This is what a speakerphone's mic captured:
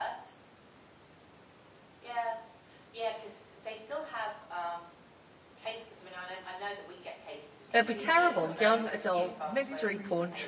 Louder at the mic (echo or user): user